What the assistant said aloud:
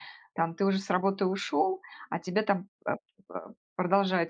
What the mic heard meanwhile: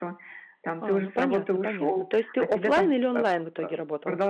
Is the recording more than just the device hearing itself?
Yes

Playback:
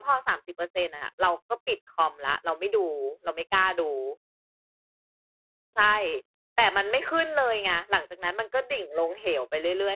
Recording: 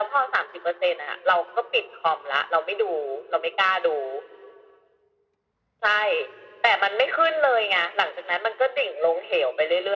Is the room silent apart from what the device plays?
Yes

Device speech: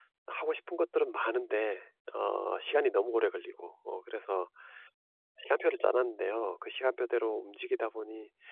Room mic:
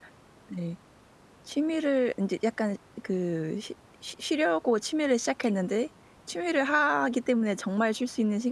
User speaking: Yes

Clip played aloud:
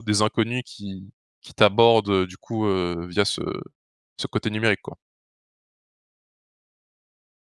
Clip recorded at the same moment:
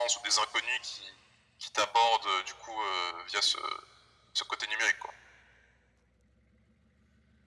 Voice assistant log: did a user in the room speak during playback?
No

